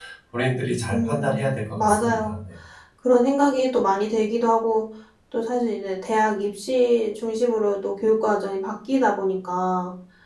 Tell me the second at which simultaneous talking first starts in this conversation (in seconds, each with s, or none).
0.9 s